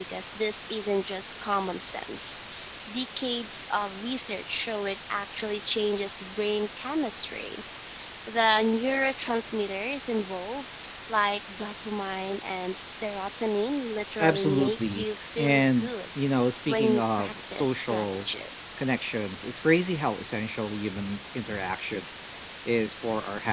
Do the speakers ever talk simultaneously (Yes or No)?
Yes